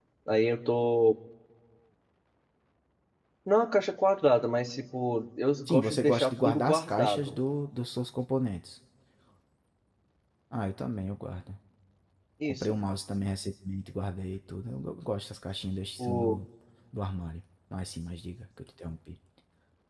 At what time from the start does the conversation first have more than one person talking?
5.7 s

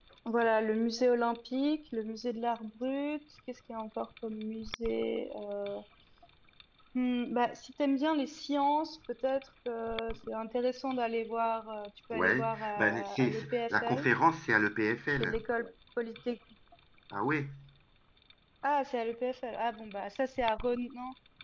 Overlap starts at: 12.1 s

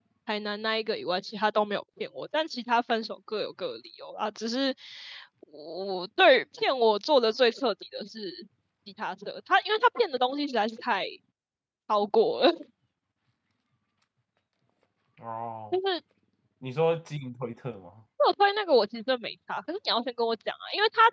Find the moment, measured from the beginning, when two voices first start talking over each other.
none

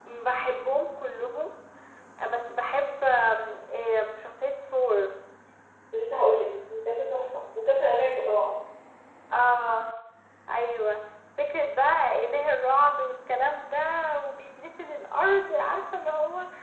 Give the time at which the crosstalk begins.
none

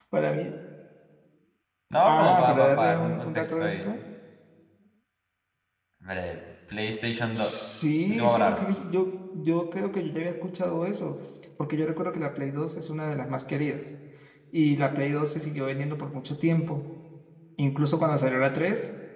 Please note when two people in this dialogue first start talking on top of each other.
2.0 s

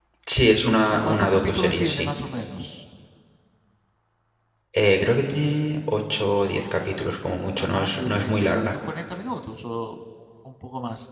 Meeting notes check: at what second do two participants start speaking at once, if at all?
0.9 s

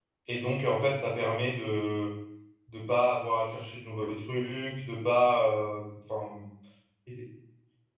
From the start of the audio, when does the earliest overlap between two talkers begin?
none

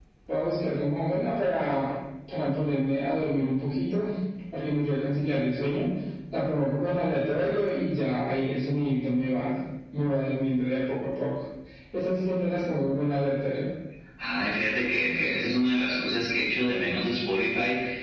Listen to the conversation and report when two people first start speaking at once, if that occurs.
none

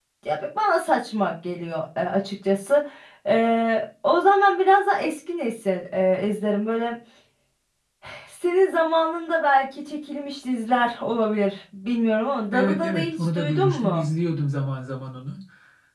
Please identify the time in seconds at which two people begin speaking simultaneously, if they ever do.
12.5 s

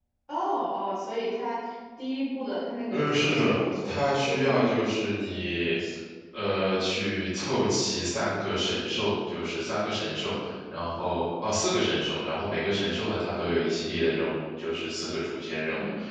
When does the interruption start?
2.9 s

